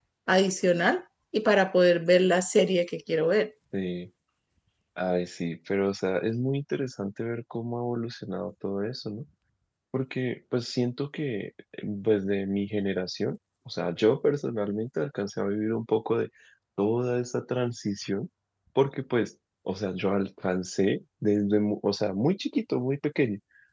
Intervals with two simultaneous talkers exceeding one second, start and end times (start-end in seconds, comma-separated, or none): none